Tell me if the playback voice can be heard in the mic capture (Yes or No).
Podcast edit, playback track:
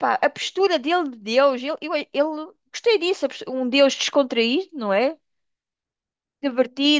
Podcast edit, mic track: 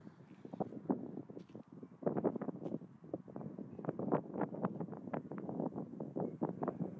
No